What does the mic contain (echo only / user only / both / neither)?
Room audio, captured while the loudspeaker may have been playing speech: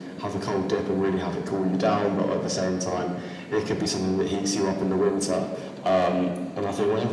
echo only